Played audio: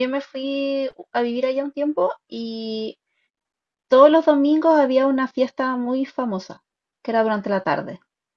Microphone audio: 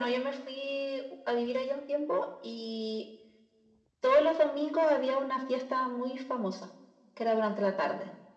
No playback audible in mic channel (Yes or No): No